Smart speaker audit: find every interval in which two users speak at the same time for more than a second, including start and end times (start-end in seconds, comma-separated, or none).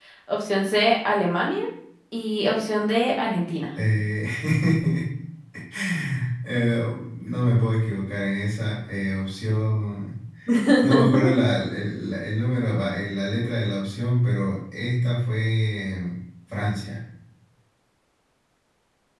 none